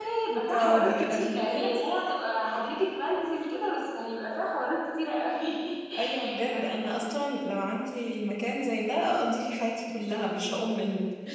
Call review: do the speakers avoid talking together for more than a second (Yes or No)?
No